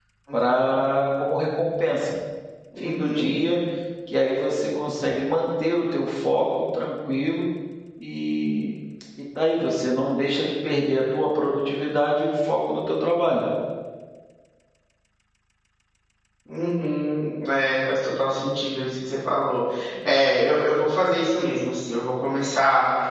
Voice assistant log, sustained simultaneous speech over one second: none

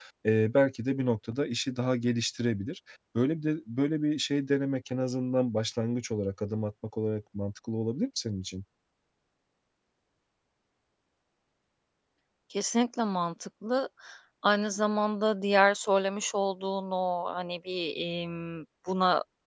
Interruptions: none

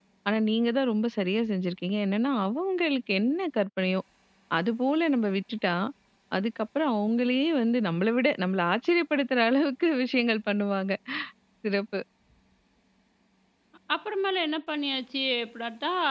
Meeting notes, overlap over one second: none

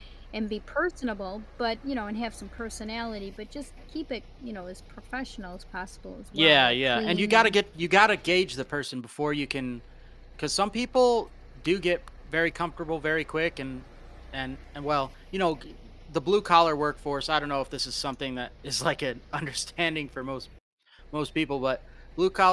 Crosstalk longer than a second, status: present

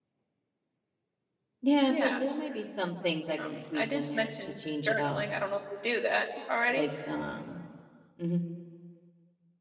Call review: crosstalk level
present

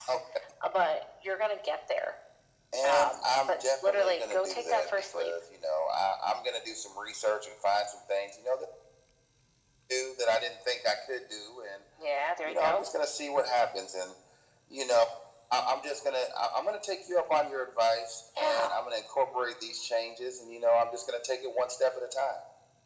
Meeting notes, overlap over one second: present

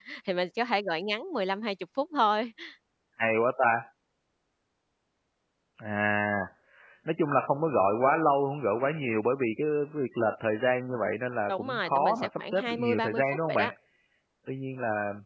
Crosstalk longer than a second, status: present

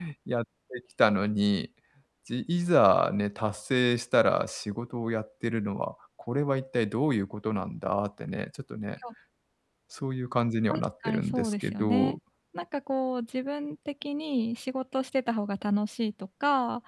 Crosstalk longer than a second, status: present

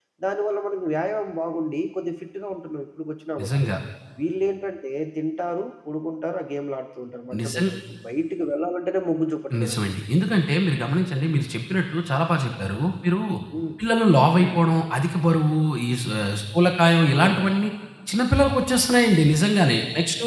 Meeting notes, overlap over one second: none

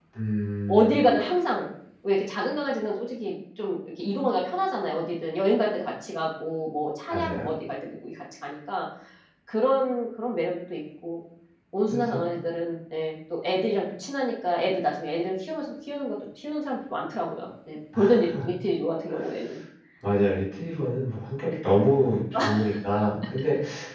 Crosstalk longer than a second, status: none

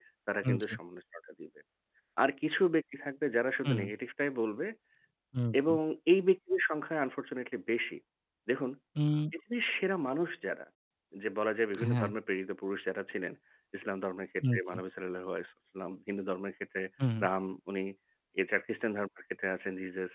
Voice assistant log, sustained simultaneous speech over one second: none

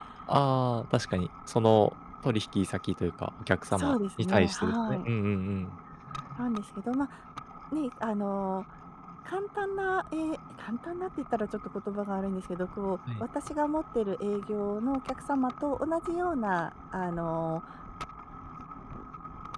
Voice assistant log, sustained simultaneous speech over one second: present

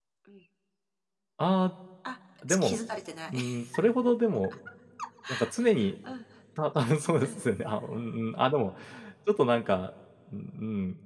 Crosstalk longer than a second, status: none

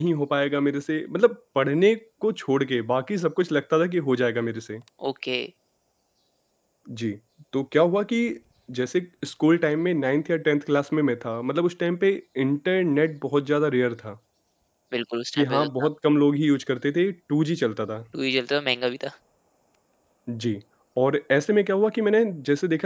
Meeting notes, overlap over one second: none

